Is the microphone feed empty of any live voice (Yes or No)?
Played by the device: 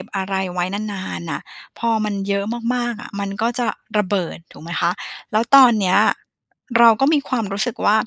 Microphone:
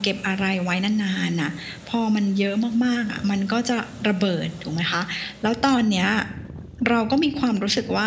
Yes